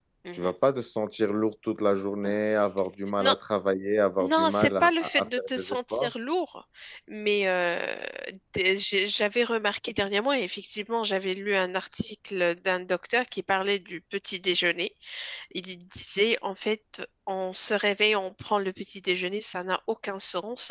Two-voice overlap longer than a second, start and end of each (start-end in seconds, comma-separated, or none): 4.2-6.1